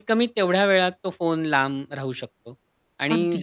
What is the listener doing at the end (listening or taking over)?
listening